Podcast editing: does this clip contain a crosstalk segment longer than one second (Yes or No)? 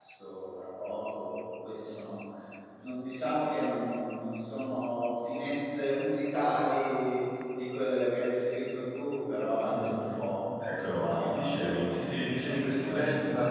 Yes